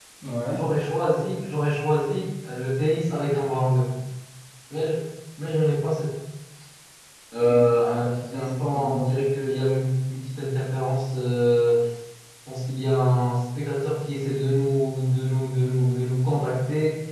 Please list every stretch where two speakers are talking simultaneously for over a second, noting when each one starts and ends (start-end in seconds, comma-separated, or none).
7.4-9.0